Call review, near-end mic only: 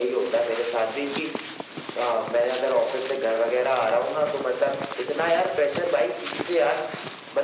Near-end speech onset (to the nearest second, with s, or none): none